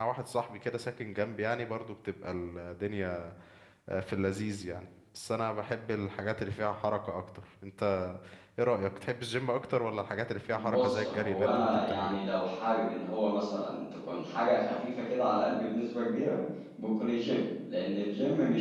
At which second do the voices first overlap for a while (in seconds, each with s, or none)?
10.5 s